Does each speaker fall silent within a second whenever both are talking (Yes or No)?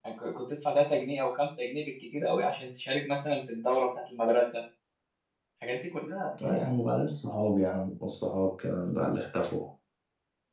Yes